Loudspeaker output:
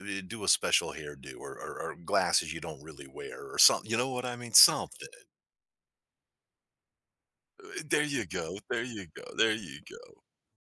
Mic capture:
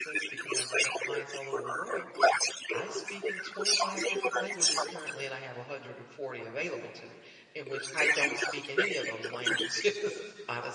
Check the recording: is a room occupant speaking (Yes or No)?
Yes